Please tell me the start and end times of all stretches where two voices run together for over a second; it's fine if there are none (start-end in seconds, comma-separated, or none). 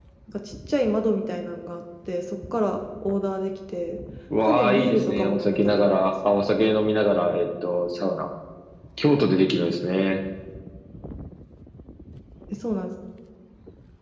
4.4-6.4